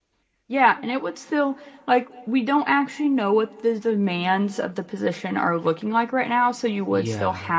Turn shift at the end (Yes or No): No